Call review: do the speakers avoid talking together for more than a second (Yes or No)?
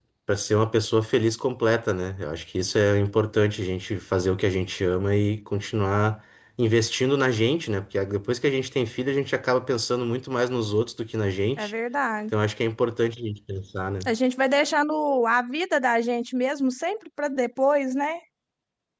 Yes